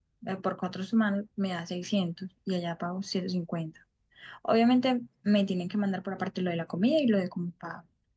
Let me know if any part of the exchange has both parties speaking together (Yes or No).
No